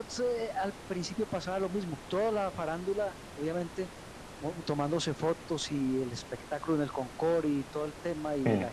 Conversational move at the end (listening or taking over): listening